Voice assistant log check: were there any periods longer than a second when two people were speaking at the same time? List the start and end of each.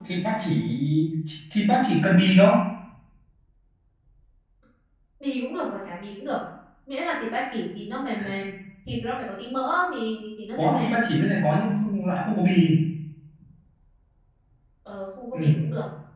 none

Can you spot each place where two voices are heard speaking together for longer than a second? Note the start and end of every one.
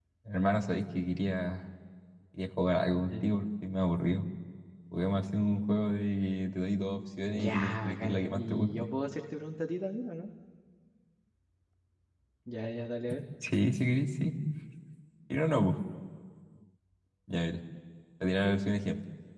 7.2-8.8

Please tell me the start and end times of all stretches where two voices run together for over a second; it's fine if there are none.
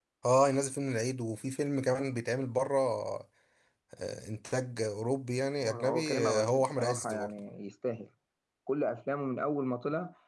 5.6-7.3

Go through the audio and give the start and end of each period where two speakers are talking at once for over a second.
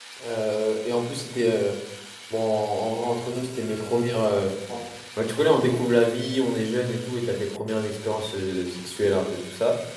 none

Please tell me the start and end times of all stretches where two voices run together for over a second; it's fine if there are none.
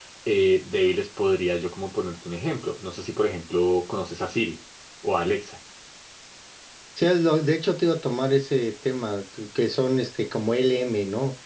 none

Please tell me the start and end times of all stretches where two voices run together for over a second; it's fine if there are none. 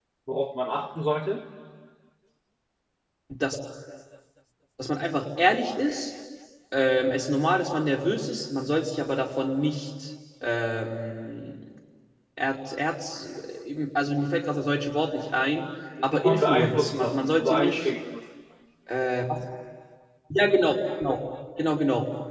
16.1-17.9

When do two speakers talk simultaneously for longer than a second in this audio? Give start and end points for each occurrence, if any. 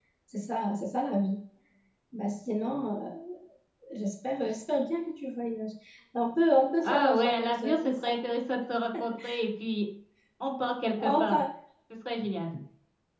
6.8-8.2

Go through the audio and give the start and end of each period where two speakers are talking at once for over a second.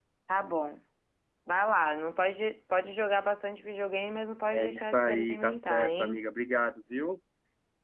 4.5-6.2

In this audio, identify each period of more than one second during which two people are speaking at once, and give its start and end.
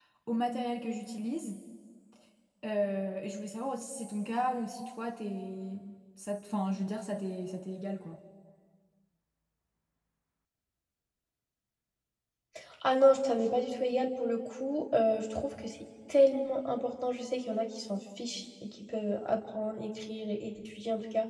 none

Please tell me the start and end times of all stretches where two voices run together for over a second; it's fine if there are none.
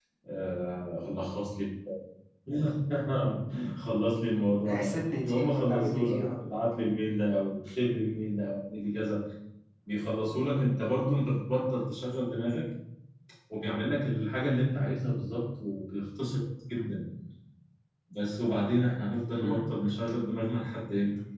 4.7-6.3

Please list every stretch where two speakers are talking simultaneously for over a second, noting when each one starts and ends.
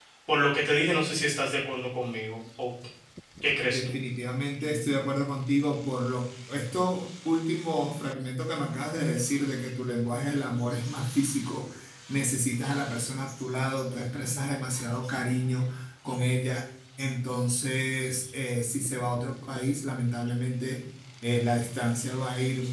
none

